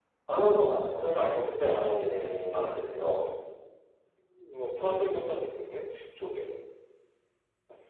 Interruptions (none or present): present